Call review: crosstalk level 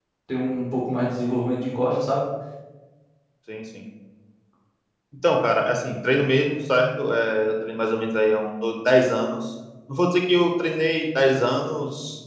none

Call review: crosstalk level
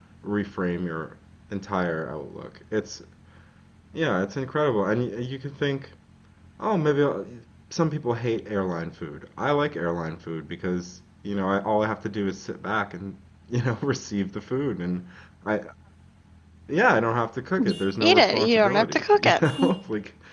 present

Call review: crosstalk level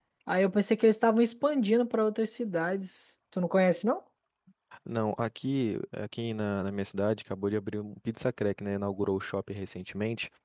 none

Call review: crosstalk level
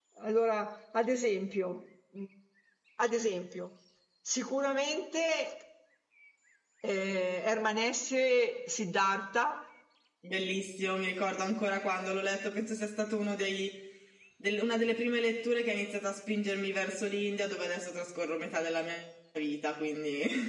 none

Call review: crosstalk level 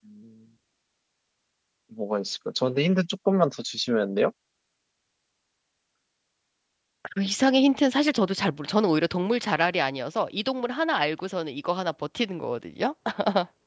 none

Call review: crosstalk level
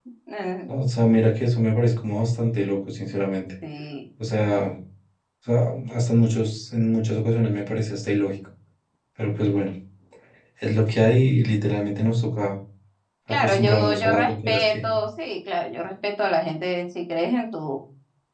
present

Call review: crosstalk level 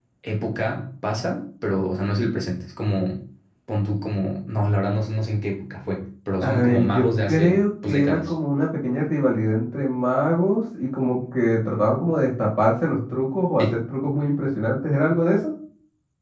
present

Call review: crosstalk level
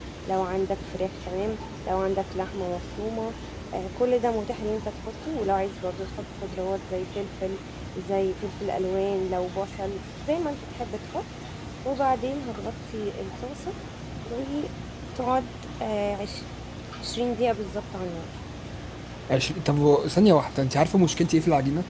none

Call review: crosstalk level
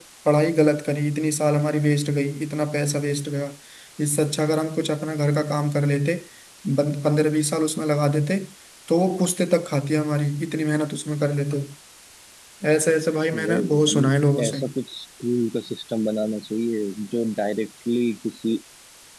present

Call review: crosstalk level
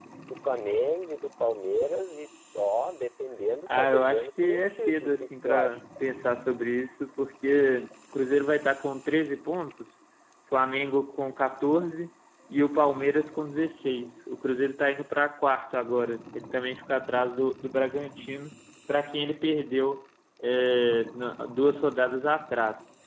present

